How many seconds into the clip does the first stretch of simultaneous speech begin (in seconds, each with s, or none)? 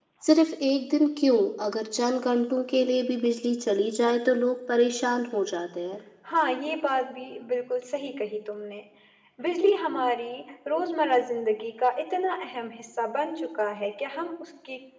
none